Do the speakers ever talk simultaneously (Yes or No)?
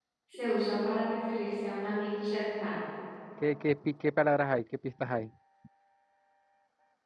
No